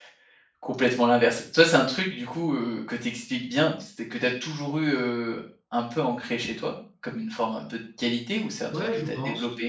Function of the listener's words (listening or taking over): taking over